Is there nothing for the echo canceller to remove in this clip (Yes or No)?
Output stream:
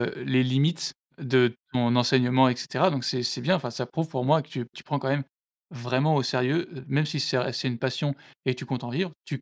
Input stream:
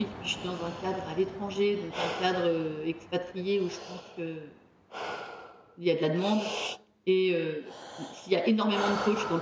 Yes